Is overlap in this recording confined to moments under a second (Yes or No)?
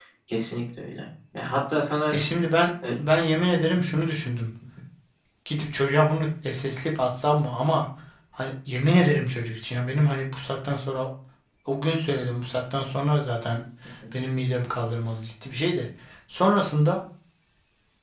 Yes